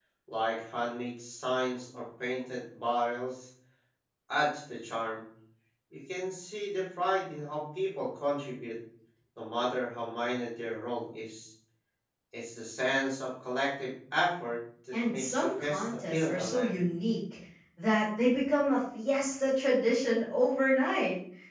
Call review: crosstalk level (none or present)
present